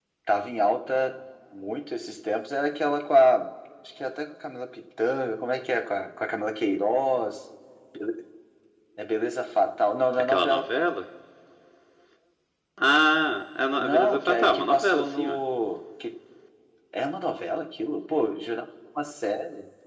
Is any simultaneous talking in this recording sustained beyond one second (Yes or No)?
Yes